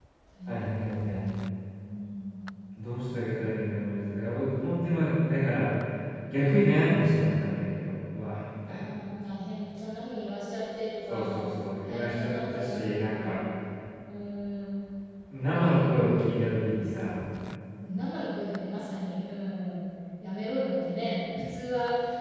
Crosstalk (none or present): present